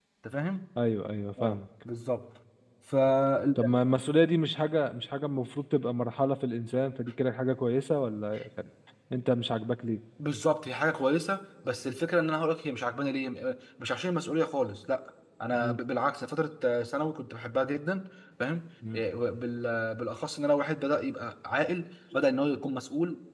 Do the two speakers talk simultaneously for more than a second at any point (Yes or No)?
No